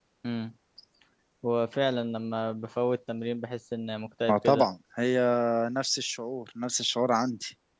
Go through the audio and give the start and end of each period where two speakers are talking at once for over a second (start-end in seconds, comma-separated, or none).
none